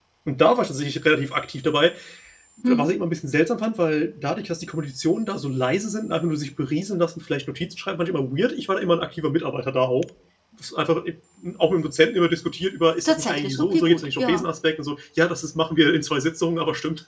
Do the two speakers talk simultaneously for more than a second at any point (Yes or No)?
Yes